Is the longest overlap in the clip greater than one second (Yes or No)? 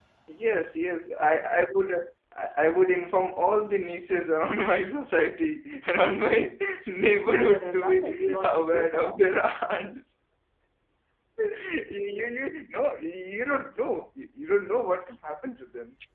Yes